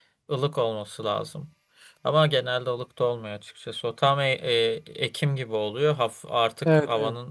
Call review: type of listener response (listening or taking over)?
listening